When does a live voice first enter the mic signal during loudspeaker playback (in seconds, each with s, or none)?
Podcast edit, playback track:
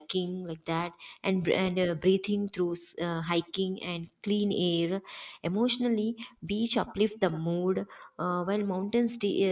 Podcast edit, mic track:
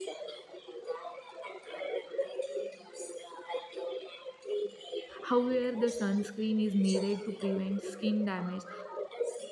5.2 s